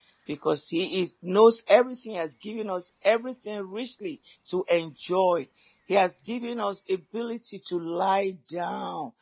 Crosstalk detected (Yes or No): No